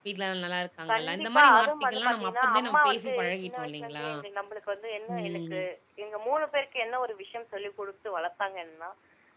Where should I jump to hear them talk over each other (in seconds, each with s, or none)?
0.9 s